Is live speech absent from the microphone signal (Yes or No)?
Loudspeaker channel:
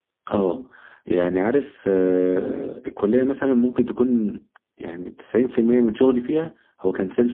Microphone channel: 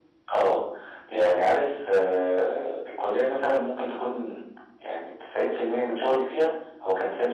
Yes